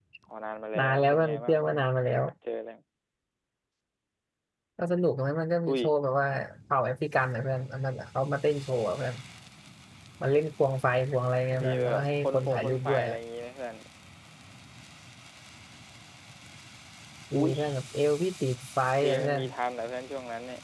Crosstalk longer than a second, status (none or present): present